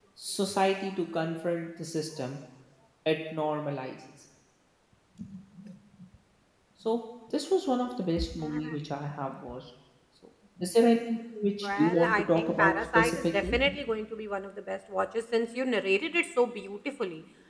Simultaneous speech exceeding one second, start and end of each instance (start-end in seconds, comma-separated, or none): 11.6-13.6